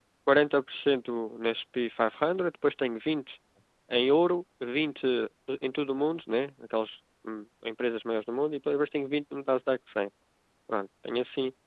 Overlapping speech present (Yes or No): No